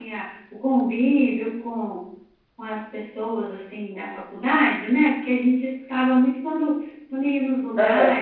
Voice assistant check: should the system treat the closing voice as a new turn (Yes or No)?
No